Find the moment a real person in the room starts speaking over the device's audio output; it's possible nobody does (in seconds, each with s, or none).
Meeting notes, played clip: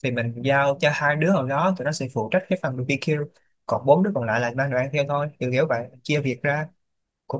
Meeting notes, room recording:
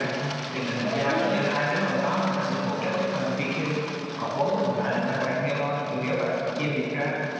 0.8 s